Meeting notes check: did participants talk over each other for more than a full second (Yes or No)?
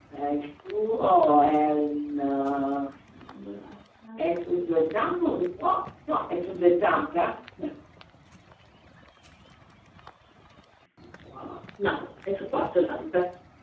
No